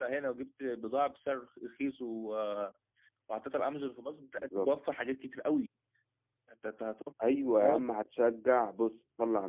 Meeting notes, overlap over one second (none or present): none